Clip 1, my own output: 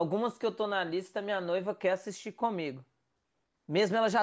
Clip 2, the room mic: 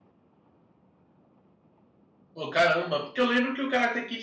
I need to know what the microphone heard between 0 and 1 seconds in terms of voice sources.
neither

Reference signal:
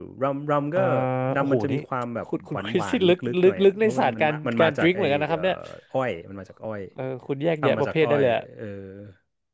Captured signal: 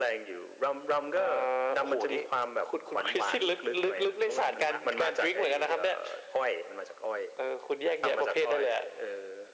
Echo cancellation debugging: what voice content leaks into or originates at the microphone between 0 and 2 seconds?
echo only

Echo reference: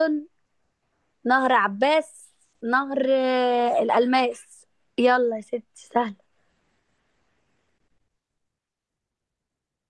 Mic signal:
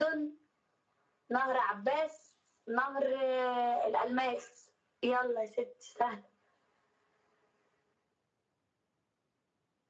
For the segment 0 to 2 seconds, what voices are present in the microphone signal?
echo only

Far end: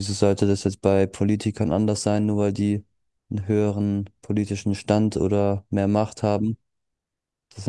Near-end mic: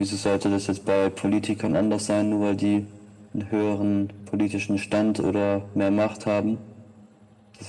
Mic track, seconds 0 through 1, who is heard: echo only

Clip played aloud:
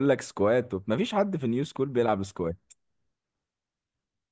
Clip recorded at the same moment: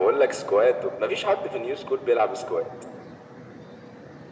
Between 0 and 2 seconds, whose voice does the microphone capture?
echo only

